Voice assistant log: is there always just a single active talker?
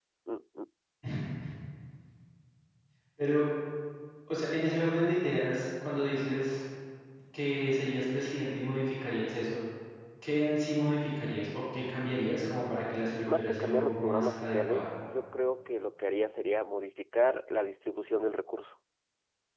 No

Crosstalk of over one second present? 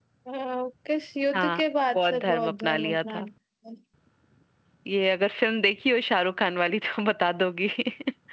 Yes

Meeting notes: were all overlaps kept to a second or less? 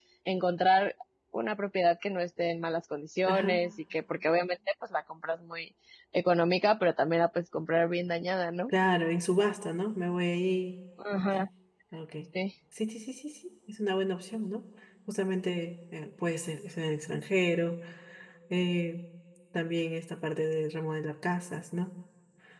Yes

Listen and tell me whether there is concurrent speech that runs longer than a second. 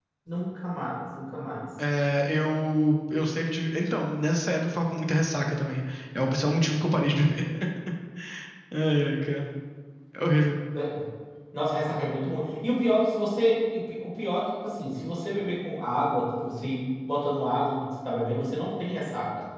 No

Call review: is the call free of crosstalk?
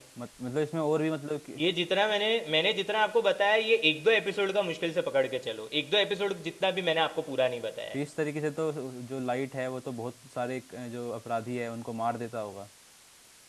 Yes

